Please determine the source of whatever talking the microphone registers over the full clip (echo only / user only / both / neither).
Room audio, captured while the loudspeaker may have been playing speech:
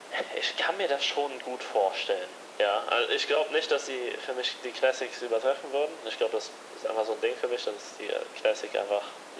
echo only